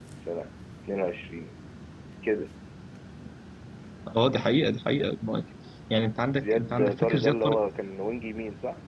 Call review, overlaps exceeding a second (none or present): present